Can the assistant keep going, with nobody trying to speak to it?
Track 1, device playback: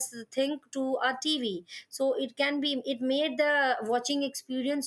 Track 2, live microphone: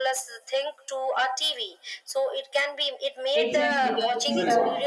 No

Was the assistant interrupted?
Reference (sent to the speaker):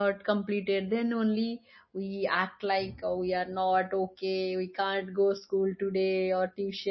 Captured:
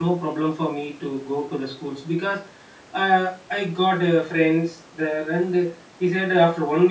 Yes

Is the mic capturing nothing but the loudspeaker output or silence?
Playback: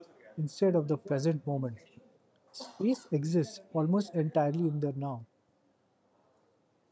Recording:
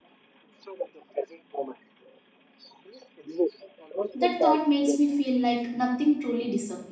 No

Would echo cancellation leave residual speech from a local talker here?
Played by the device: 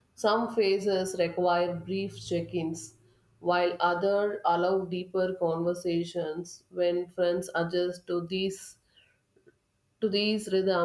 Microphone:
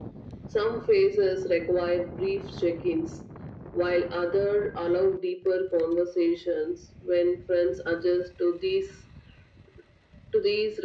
No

